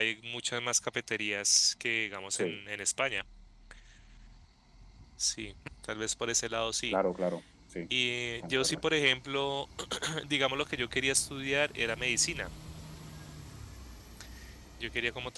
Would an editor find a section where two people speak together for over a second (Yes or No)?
No